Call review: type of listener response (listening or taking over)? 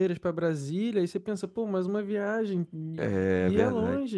taking over